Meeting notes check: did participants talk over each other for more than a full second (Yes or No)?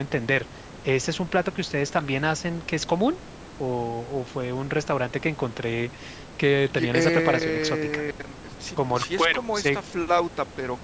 Yes